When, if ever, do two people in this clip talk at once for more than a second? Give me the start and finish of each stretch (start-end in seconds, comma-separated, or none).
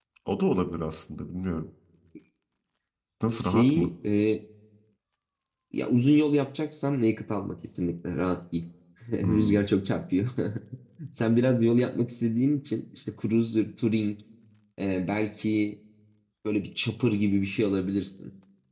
none